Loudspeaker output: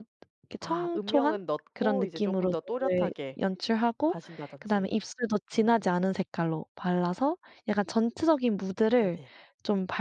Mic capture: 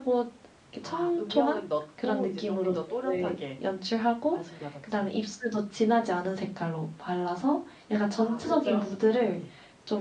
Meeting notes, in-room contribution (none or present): present